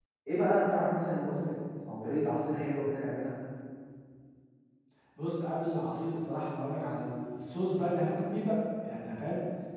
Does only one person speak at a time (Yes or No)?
Yes